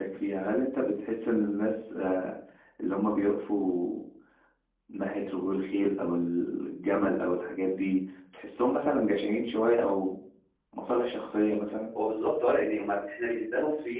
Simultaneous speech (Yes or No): No